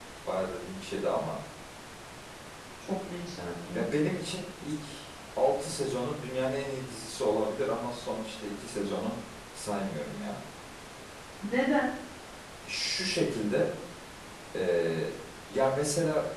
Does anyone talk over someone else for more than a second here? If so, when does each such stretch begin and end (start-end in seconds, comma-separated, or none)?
none